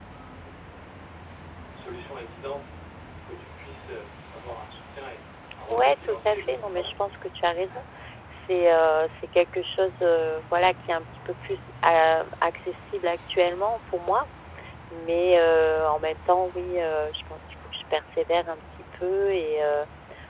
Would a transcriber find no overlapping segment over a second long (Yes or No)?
No